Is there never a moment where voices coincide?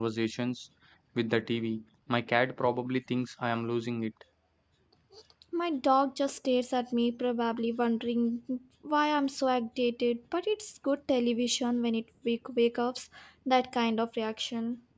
Yes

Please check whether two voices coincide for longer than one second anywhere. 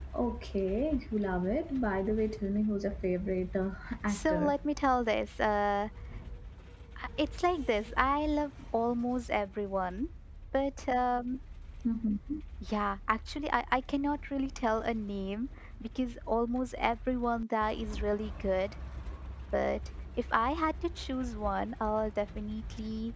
No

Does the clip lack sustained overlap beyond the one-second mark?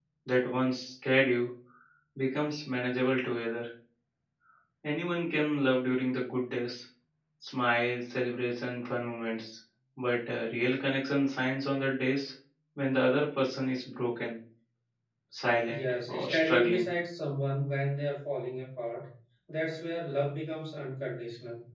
No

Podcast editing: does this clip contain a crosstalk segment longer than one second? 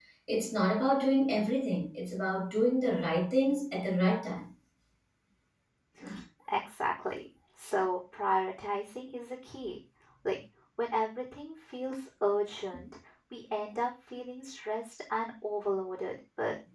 No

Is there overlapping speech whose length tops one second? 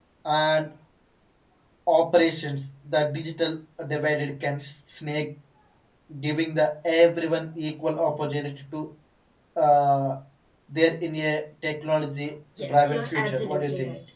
Yes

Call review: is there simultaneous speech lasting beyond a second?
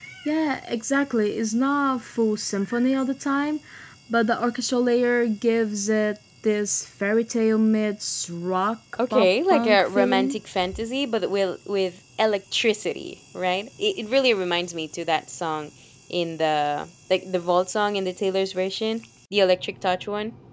Yes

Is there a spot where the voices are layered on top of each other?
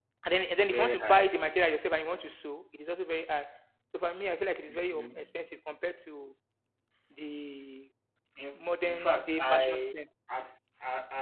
Yes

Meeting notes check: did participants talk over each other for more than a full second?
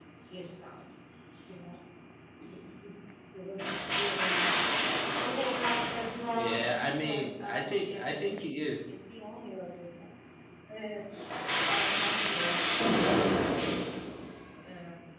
Yes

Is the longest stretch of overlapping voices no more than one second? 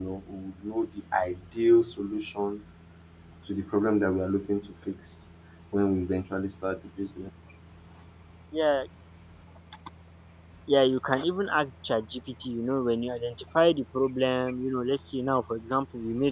Yes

